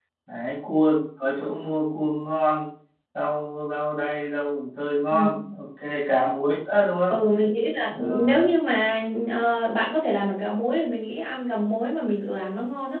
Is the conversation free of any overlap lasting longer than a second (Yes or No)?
Yes